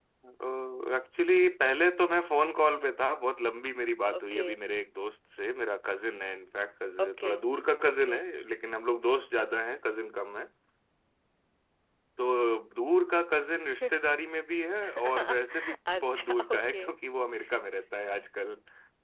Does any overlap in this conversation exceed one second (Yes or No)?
Yes